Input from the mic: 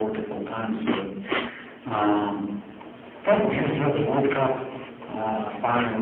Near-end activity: none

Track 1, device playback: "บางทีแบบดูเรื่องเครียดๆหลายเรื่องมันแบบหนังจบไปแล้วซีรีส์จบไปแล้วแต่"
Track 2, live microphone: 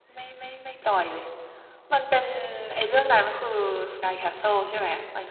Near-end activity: present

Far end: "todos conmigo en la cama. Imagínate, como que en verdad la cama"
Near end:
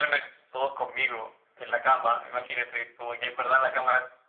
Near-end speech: none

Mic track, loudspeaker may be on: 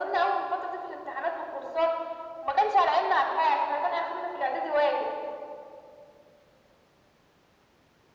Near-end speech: none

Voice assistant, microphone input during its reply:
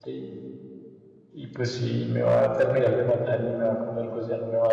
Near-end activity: present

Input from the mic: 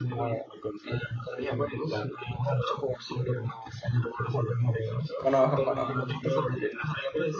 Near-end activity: present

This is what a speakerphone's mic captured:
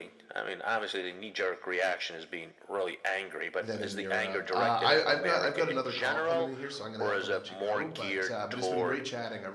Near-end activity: present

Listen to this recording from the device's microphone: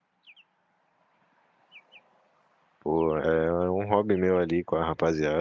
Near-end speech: present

